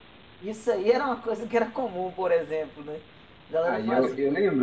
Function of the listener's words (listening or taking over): taking over